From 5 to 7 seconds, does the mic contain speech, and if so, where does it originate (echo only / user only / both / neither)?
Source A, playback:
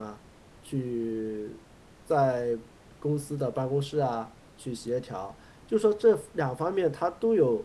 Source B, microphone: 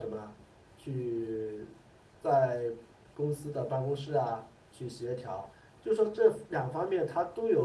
echo only